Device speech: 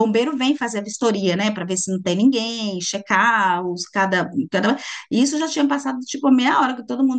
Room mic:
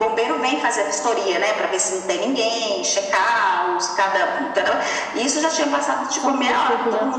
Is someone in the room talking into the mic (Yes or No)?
Yes